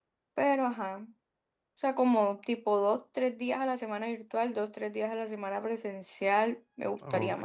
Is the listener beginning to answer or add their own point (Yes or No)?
Yes